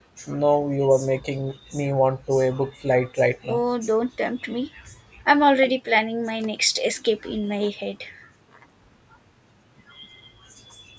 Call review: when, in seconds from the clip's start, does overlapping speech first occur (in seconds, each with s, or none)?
none